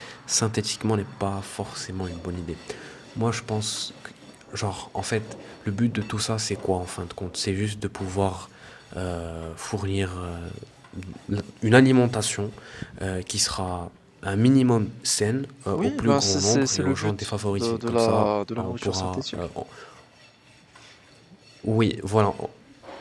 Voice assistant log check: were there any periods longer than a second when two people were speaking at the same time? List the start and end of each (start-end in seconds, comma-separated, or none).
15.8-17.1, 17.5-19.4